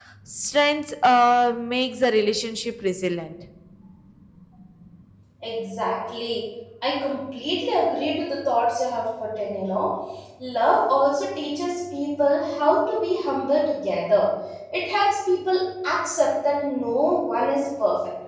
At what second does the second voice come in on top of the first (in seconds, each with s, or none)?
none